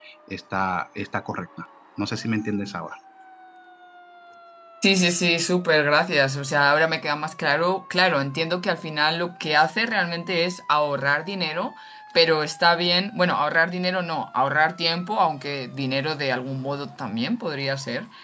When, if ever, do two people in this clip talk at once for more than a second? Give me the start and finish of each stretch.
none

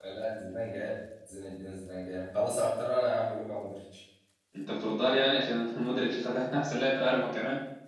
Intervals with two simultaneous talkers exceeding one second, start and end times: none

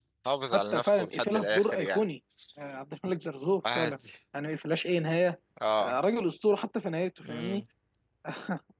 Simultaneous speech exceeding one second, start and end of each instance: 0.5-2.0

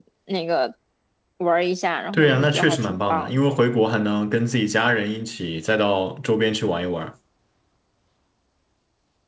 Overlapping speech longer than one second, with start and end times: 2.1-3.4

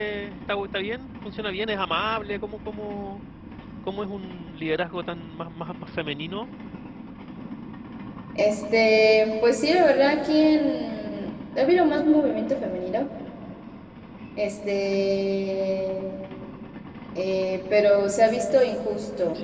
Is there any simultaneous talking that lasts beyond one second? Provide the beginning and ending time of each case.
none

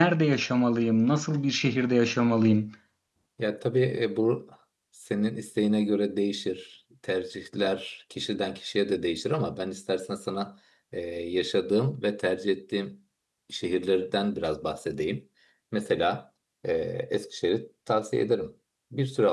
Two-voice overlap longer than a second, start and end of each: none

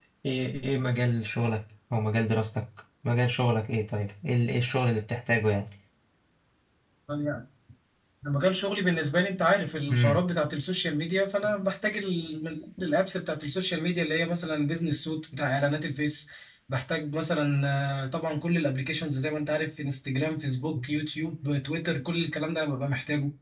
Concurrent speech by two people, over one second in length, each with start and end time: none

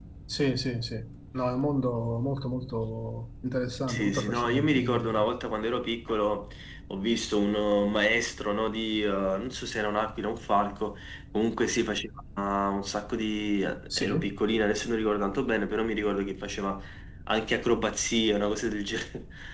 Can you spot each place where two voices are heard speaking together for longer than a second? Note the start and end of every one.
3.9-5.3

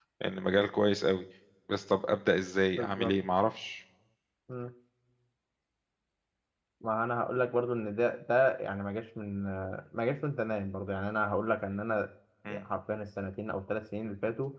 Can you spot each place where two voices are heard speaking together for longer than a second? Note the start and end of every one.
none

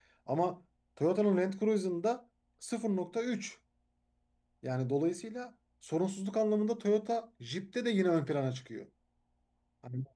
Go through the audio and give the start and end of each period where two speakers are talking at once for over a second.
none

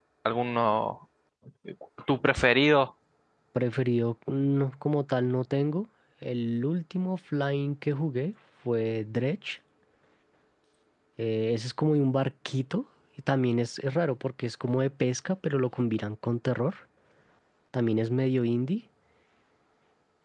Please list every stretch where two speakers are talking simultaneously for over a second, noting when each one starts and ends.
none

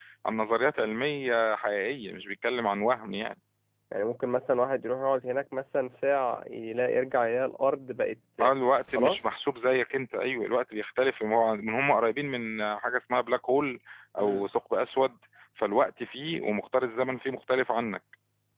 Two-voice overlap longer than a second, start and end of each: none

